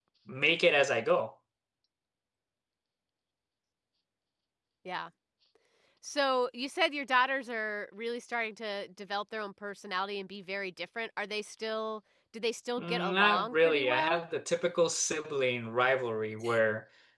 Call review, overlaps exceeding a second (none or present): present